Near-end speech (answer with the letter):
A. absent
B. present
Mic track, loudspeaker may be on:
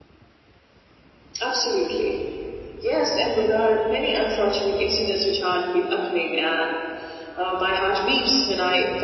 A